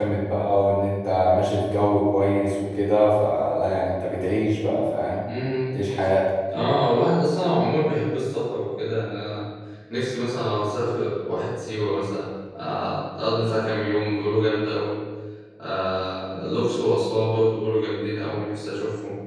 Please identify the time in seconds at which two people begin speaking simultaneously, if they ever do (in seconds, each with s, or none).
none